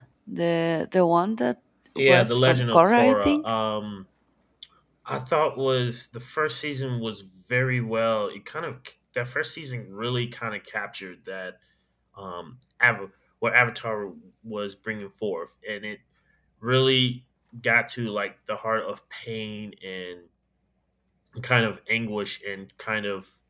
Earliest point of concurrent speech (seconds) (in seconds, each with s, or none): 2.0 s